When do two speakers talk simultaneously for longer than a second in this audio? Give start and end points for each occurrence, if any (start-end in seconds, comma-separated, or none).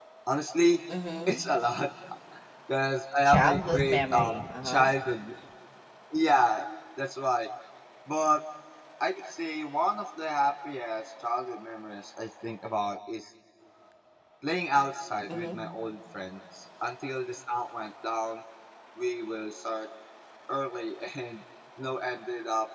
3.3-4.9